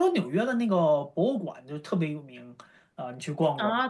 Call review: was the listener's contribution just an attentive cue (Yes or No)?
No